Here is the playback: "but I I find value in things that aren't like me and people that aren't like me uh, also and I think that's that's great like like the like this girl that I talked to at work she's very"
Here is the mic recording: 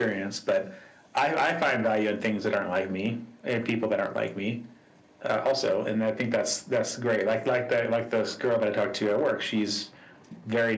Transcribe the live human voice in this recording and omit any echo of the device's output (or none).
none